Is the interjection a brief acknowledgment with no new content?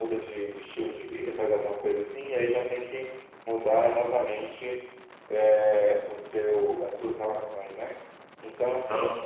Yes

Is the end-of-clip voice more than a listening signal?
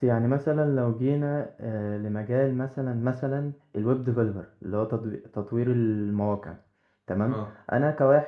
No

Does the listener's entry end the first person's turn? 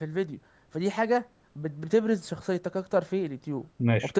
Yes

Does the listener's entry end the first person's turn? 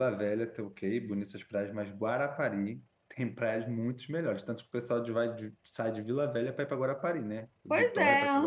Yes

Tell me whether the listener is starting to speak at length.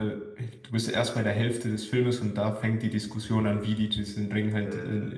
No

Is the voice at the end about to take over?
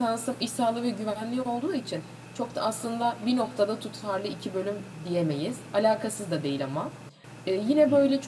No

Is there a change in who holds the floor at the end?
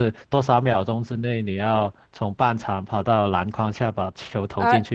Yes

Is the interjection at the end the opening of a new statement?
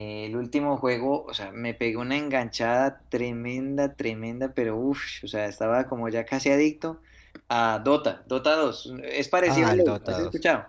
Yes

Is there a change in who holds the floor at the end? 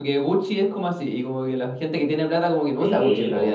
Yes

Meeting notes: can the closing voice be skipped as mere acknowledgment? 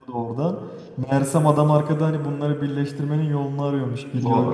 Yes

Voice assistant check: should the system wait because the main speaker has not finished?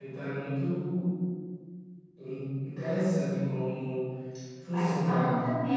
No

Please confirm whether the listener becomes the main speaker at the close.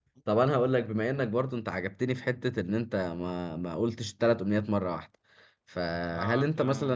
No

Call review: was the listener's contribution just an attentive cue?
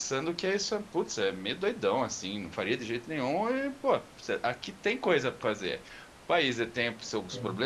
Yes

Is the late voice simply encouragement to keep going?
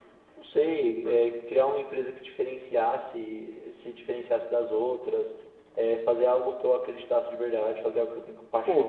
No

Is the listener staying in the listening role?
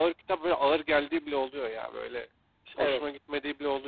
Yes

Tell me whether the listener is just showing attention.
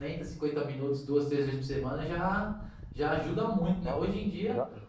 No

